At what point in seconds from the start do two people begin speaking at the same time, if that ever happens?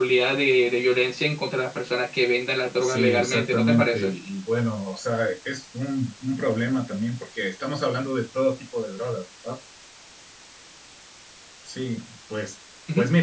2.8 s

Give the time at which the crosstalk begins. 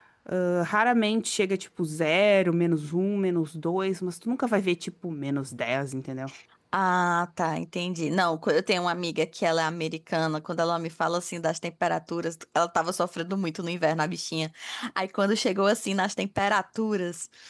none

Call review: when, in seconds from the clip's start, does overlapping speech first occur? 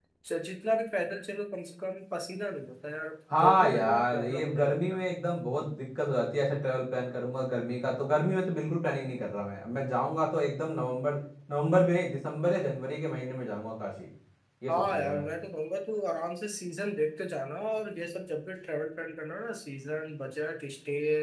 3.3 s

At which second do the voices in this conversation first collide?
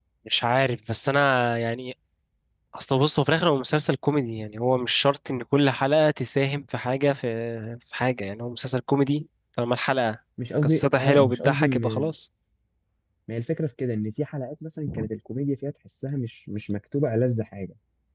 10.6 s

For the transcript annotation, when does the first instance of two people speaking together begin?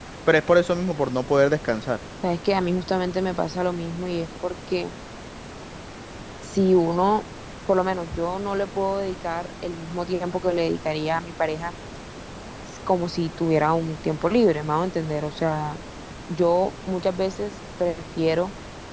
none

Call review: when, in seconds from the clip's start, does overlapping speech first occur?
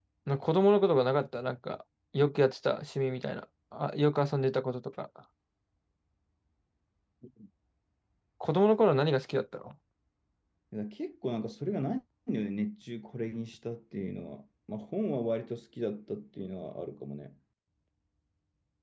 none

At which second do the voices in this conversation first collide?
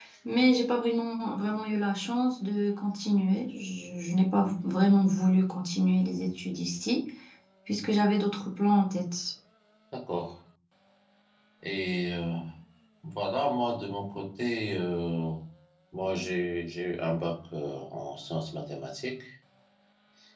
none

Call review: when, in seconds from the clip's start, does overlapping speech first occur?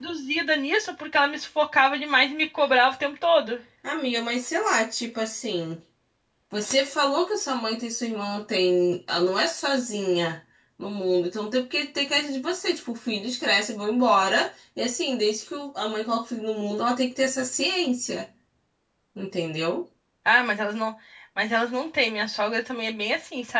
none

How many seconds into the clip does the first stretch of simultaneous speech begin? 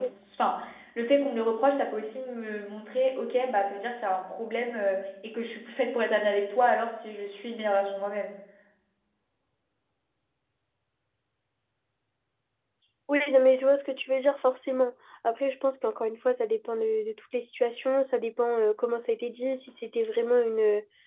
none

